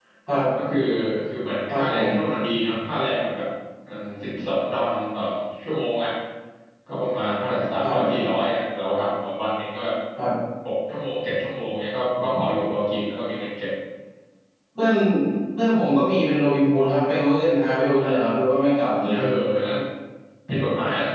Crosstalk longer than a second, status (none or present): none